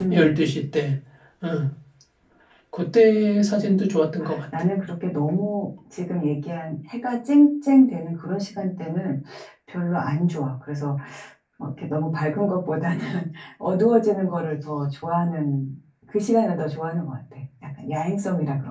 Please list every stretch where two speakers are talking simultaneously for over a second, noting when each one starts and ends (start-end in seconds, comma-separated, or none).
none